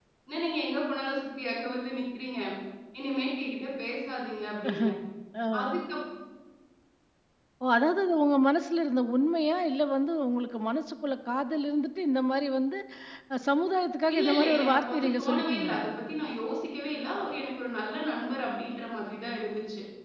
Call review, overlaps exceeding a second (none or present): present